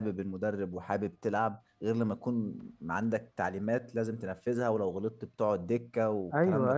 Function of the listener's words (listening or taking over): taking over